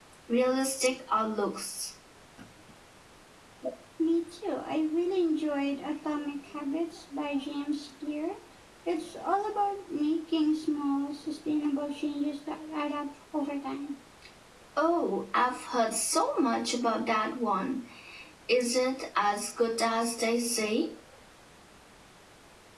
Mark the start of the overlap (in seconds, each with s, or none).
none